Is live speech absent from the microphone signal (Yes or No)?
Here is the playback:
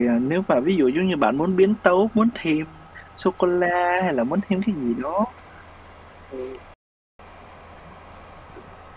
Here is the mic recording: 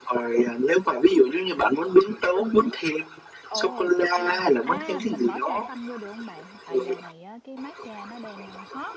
No